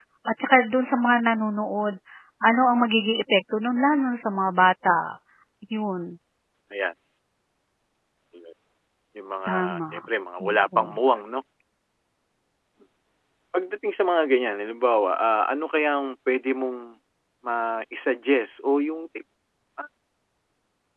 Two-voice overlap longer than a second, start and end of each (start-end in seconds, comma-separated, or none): none